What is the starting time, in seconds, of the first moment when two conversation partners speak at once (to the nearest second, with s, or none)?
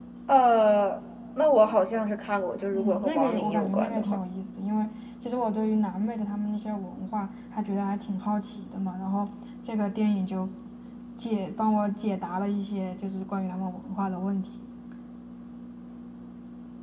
3 s